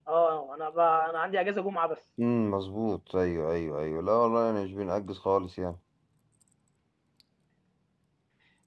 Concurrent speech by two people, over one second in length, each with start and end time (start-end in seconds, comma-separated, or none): none